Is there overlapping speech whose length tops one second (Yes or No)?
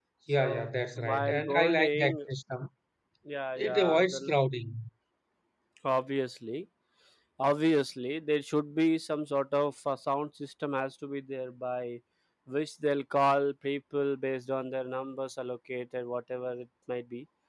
Yes